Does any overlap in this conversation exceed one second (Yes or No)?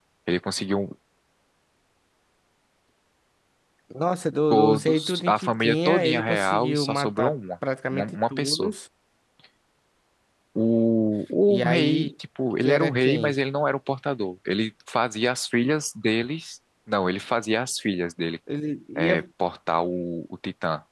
Yes